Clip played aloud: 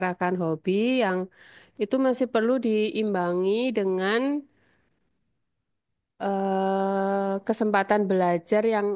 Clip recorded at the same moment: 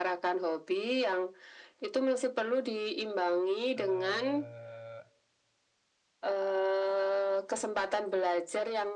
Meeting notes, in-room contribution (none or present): present